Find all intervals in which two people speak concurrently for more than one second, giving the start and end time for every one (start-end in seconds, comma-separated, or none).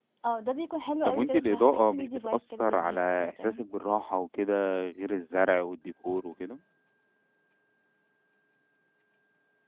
1.0-3.6